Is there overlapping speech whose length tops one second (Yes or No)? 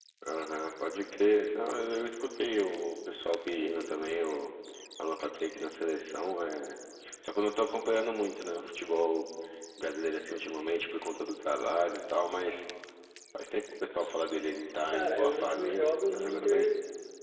Yes